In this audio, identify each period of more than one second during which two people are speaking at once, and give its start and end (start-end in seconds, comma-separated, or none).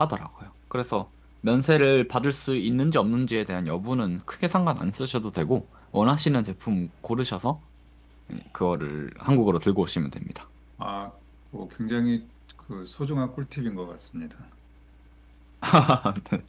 none